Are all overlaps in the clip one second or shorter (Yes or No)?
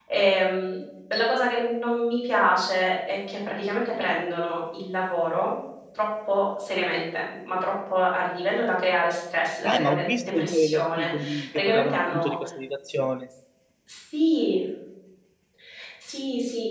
No